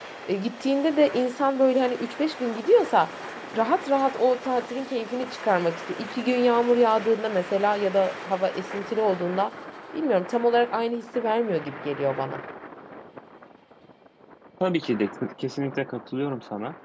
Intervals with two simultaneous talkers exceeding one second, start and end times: none

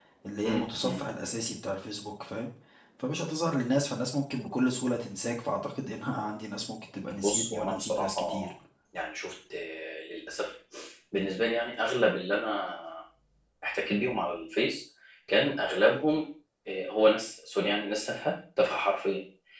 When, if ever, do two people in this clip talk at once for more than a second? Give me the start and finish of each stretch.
7.2-8.5

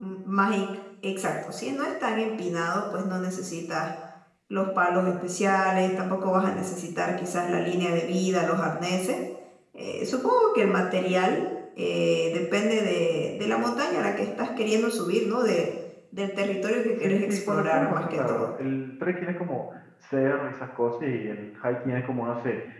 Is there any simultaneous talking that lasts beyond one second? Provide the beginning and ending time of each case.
17.0-18.5

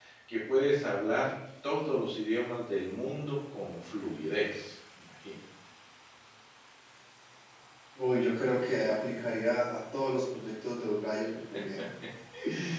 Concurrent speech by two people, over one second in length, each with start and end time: none

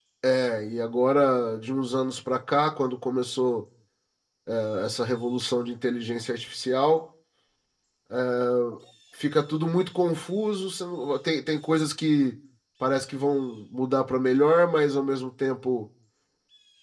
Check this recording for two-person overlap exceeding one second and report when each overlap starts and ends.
none

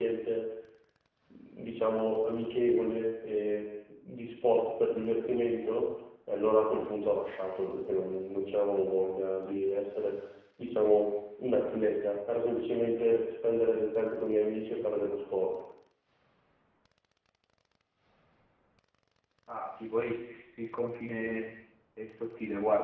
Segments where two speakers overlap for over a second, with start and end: none

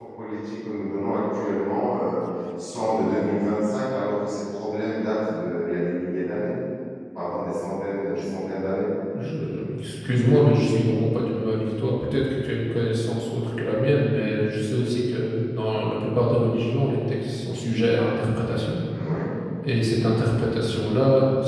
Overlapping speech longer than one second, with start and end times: none

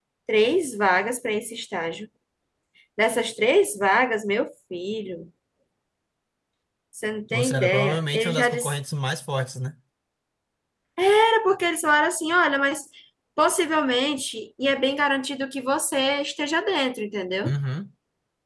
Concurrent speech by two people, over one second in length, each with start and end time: 7.3-8.8

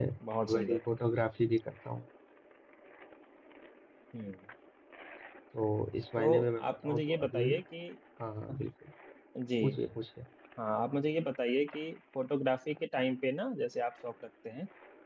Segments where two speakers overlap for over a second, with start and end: 6.2-7.5

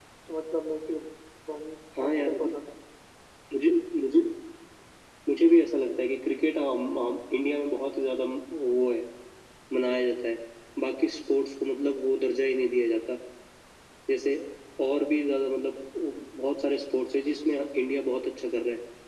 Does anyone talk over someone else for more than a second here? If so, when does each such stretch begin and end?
none

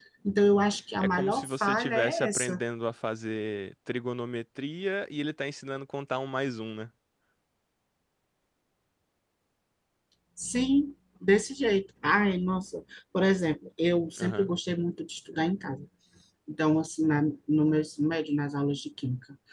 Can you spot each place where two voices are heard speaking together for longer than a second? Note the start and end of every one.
1.1-2.6

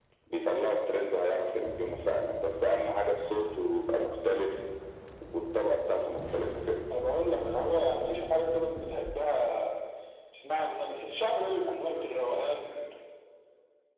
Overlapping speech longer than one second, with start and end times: none

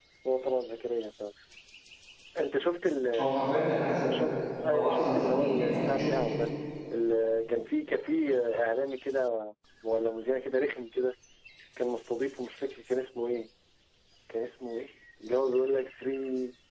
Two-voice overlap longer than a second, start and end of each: 4.7-6.2

